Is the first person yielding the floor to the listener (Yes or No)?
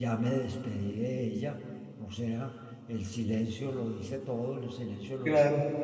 Yes